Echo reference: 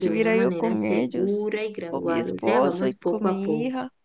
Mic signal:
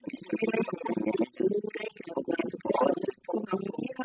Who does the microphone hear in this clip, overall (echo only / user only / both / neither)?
echo only